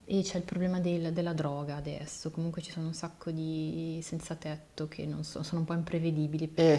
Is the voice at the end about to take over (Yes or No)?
Yes